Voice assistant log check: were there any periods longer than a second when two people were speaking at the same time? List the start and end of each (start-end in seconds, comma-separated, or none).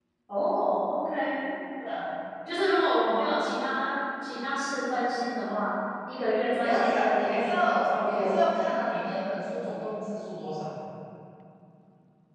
6.6-8.5